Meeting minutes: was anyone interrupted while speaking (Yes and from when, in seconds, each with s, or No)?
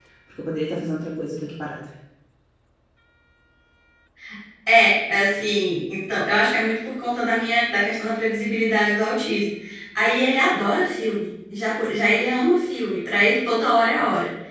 No